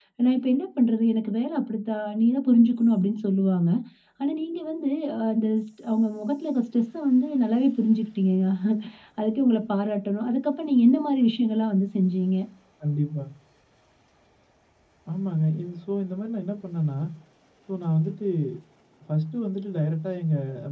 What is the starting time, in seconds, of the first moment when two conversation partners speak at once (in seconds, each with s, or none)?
none